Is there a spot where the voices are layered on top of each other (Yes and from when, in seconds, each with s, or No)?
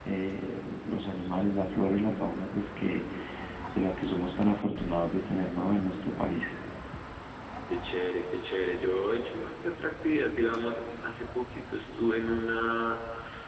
No